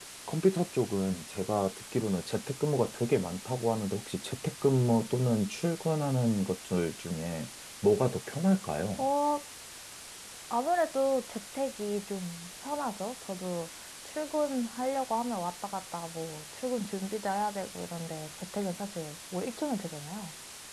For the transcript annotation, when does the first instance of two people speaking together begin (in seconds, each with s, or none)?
none